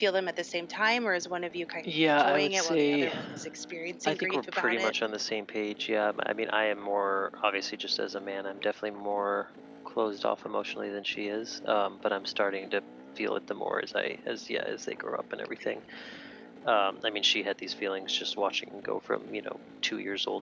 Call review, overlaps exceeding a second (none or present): present